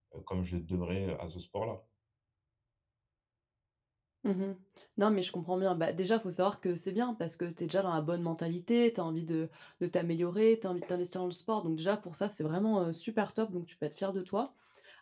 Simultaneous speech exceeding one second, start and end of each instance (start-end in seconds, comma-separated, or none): none